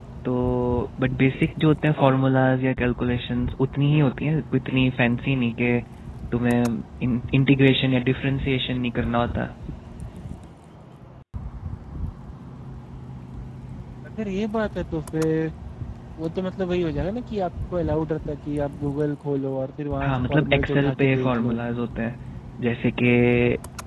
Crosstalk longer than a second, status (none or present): present